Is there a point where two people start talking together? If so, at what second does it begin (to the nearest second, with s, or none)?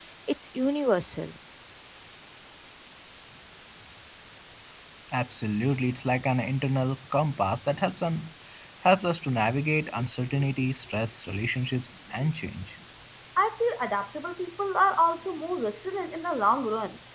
none